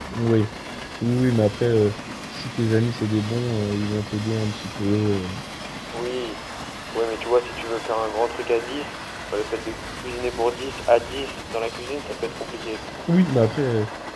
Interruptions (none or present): none